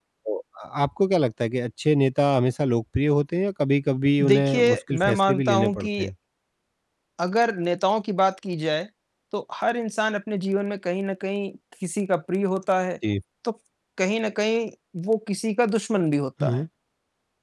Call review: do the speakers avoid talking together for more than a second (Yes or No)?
No